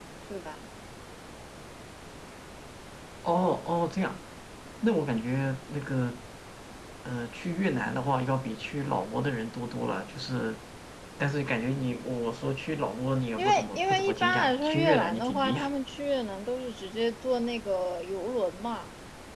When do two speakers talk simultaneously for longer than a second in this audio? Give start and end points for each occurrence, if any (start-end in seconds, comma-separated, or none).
13.4-15.6